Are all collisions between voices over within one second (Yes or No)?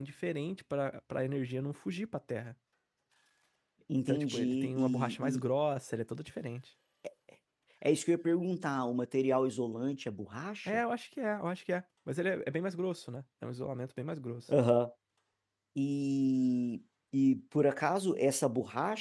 No